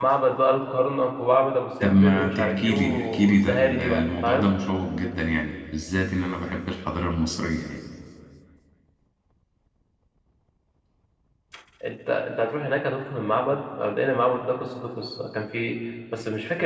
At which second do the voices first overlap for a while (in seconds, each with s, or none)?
1.8 s